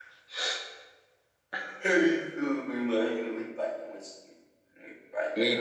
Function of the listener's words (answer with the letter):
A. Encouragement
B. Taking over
B